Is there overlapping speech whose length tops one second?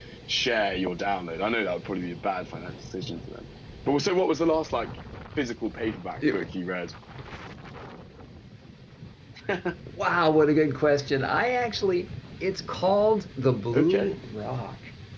No

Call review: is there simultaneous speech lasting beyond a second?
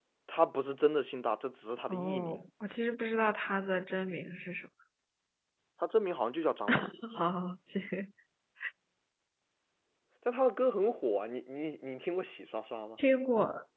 No

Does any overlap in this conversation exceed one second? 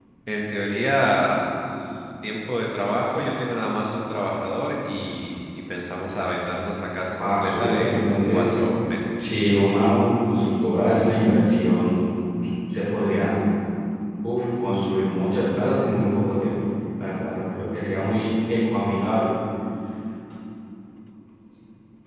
Yes, from 7.2 s

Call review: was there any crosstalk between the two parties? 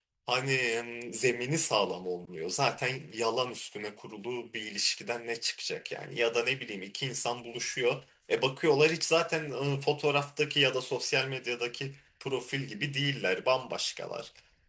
No

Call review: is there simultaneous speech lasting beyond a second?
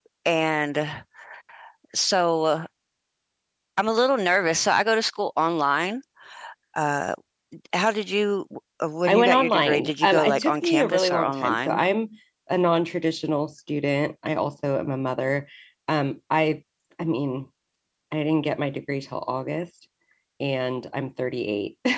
Yes, from 9.1 s

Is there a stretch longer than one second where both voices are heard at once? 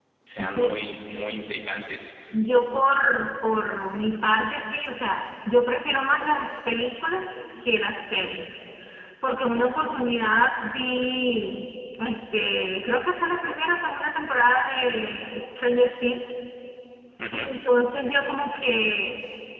No

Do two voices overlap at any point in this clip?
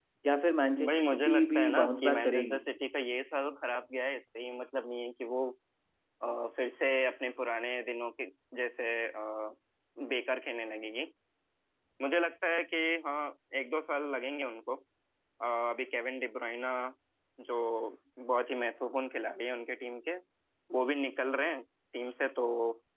Yes, from 0.9 s

